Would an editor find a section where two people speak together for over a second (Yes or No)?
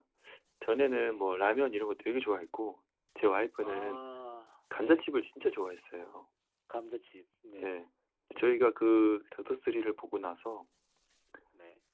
No